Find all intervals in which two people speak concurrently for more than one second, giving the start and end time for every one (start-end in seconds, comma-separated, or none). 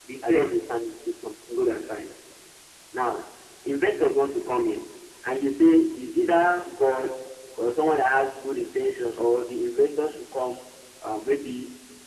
none